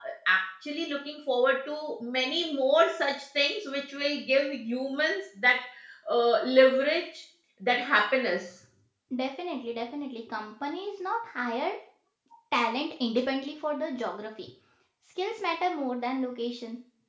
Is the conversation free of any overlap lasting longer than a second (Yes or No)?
Yes